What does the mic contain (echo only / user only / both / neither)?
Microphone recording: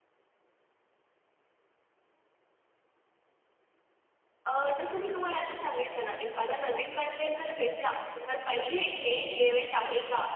echo only